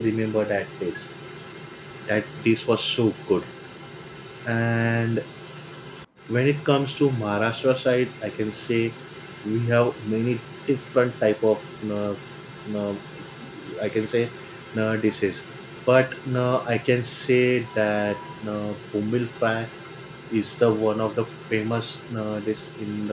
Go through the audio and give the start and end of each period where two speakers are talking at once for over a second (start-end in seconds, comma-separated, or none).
none